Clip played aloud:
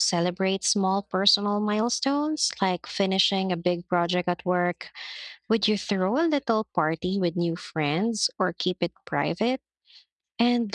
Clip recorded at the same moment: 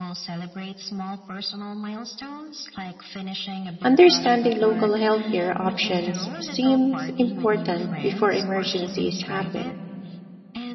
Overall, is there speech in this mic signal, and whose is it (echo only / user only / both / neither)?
both